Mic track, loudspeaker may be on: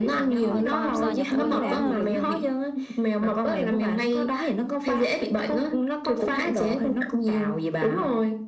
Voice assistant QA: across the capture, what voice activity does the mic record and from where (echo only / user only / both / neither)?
both